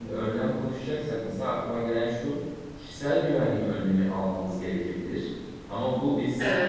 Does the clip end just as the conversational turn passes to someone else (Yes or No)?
No